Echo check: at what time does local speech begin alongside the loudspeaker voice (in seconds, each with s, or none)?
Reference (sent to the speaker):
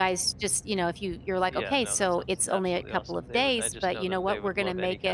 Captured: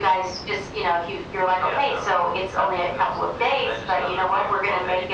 none